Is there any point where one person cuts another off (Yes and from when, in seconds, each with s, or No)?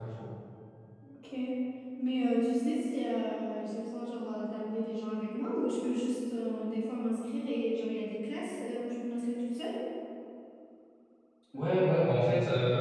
No